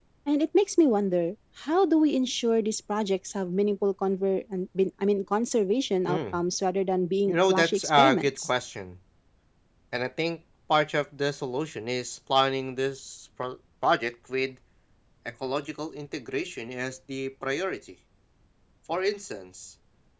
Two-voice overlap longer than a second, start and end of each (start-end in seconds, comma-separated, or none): 7.3-8.5